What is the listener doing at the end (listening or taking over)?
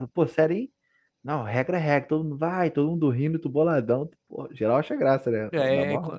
taking over